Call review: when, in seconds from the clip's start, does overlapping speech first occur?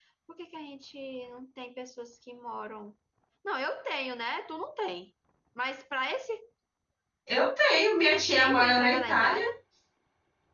8.1 s

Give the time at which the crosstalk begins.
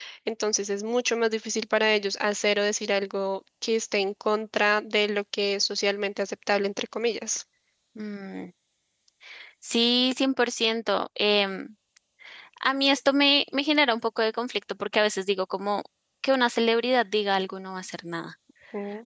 none

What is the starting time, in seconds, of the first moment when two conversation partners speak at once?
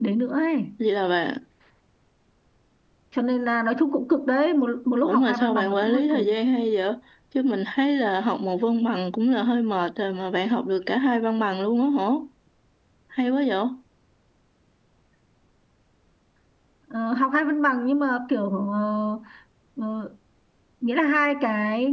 5.0 s

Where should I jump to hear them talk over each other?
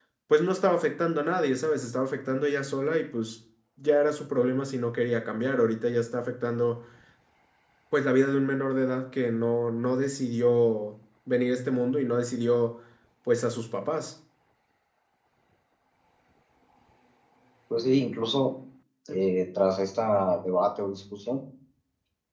none

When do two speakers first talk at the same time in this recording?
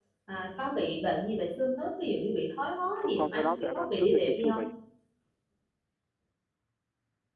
3.0 s

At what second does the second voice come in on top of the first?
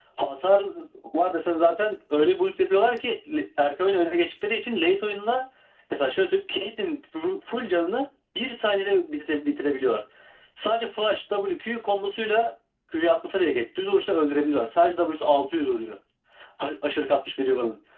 none

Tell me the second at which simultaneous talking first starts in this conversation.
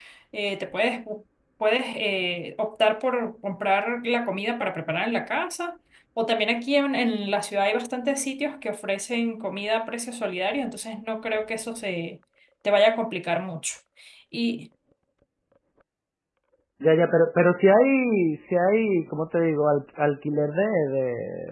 none

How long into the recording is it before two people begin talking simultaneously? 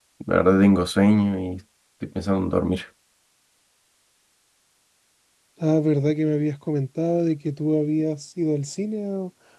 none

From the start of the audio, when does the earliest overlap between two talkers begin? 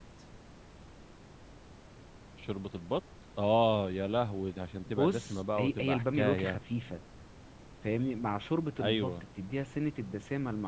5.0 s

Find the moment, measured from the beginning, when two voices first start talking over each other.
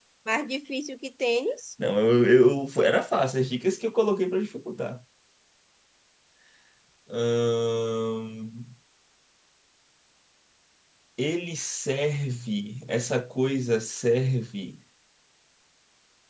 none

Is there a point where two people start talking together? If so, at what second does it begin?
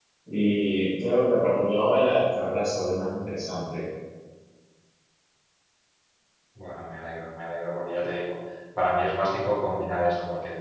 none

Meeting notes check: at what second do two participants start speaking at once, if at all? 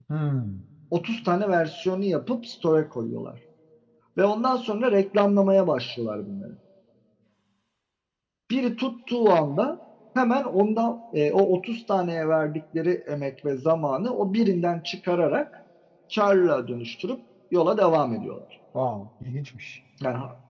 none

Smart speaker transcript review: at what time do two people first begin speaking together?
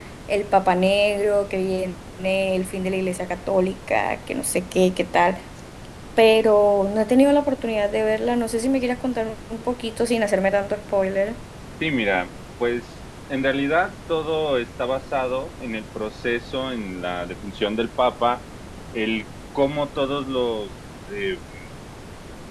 none

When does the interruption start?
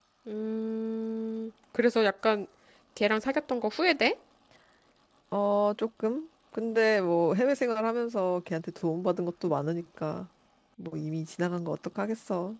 none

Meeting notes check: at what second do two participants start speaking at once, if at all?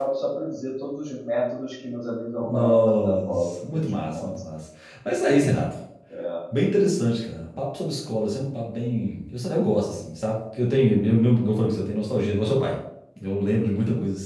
2.4 s

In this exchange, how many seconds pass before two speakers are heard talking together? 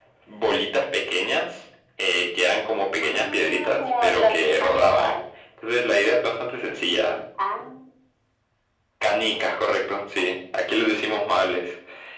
3.0 s

